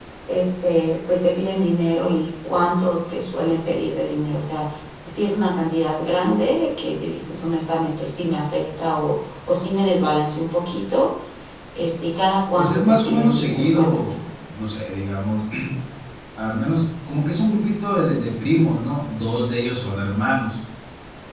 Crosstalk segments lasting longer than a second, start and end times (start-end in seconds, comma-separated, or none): 12.6-14.1